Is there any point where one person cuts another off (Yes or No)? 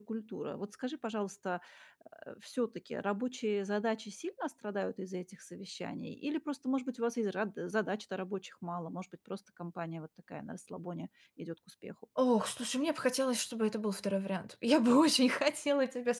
No